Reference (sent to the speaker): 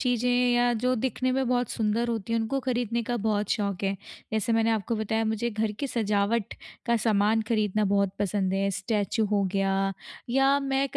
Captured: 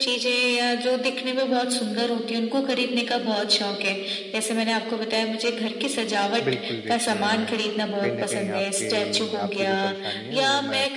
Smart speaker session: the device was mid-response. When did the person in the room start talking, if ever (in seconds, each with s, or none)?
6.4 s